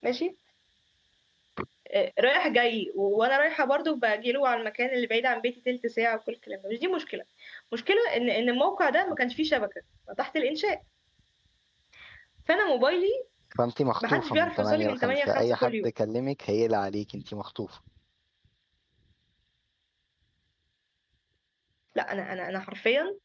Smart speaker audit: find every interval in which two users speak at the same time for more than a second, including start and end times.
14.0-15.9

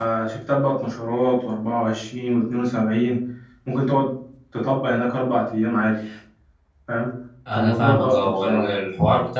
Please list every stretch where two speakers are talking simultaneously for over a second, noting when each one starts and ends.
7.5-8.7

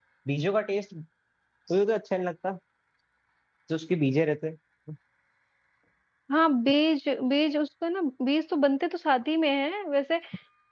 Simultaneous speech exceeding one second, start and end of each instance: none

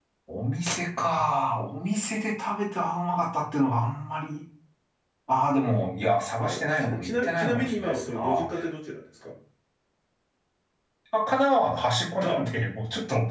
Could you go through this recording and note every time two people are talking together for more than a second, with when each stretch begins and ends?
6.4-8.5

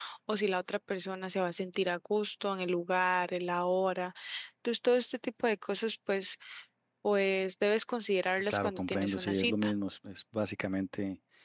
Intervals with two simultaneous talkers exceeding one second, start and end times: 8.5-9.7

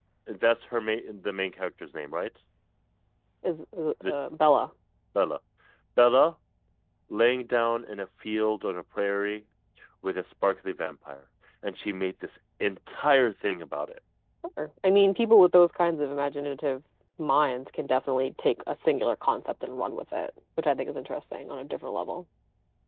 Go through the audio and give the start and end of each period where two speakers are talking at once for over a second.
none

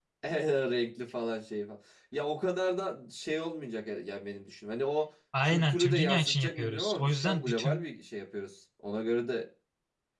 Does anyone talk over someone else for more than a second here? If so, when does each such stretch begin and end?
5.4-7.8

